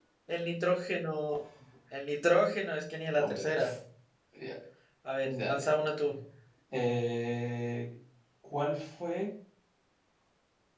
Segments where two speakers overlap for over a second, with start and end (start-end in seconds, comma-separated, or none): none